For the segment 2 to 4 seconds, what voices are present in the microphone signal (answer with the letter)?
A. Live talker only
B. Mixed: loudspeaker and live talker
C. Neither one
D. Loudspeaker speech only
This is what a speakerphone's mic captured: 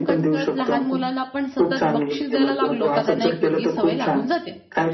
B